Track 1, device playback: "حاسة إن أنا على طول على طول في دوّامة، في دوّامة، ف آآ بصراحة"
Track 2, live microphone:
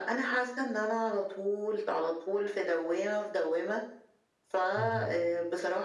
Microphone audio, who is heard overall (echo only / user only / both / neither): both